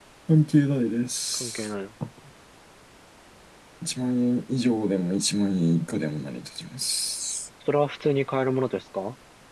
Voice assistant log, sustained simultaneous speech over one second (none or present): none